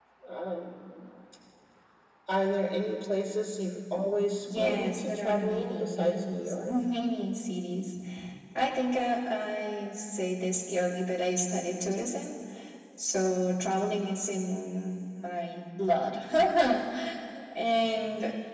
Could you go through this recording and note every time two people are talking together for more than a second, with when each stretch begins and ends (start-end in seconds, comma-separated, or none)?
4.5-6.7